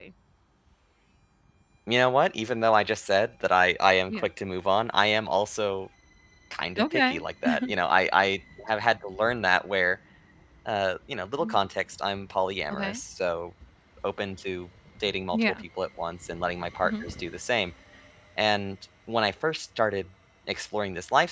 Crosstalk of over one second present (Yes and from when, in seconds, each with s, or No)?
No